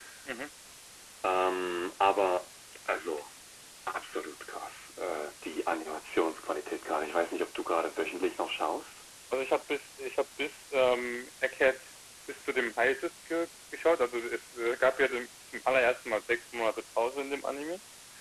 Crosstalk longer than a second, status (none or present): none